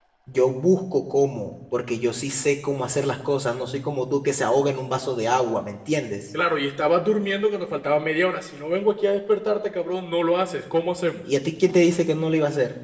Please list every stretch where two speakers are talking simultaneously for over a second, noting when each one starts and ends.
none

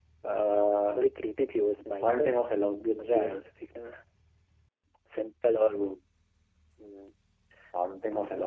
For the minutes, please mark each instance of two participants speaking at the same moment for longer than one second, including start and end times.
none

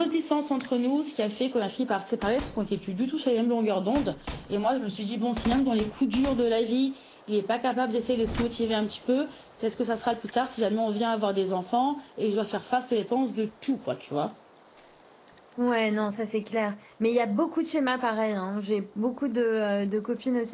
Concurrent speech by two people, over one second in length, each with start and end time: none

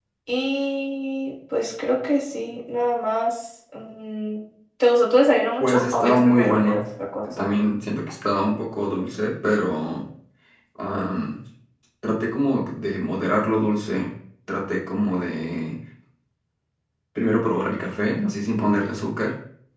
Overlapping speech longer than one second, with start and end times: 5.6-6.8

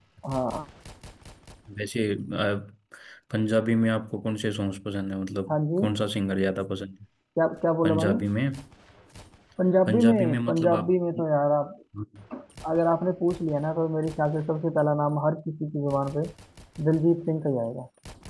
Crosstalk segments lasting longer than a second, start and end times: 9.9-11.2

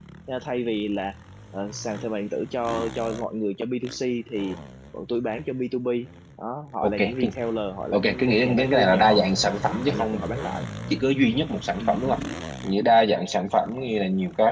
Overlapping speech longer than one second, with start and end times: 7.9-9.3

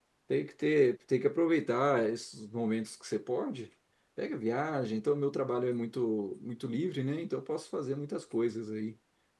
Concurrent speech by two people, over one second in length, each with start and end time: none

